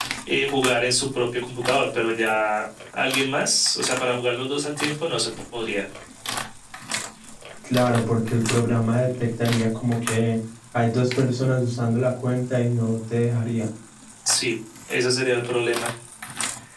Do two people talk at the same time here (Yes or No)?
No